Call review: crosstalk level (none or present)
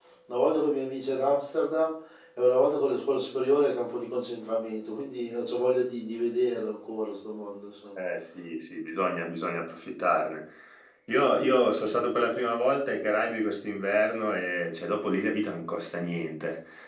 none